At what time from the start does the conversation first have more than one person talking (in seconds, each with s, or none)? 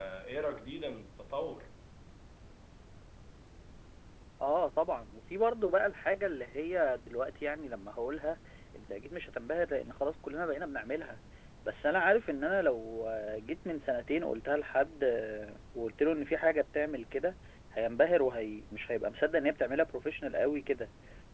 none